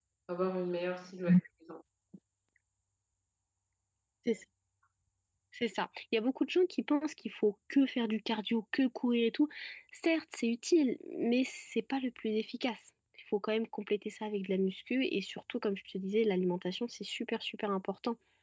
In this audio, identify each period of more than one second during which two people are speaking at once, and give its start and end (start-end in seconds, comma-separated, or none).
none